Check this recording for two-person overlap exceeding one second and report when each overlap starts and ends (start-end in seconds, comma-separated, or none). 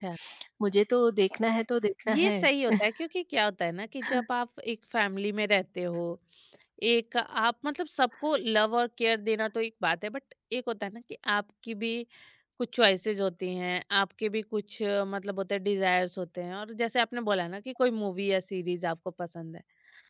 none